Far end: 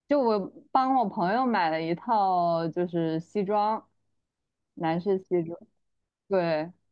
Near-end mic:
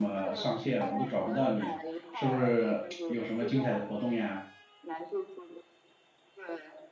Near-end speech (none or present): present